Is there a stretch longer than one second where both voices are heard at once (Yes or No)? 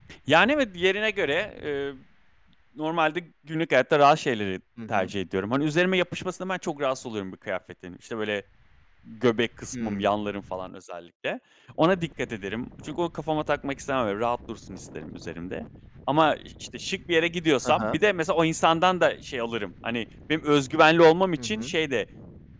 No